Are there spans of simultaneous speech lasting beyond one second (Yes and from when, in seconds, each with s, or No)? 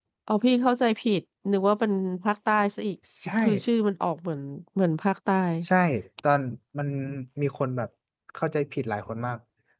No